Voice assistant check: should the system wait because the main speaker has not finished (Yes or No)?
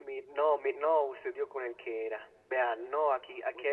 Yes